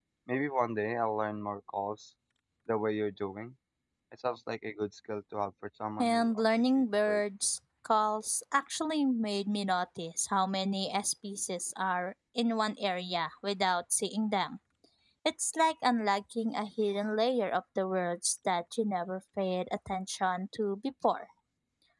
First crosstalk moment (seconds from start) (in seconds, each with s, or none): 6.0 s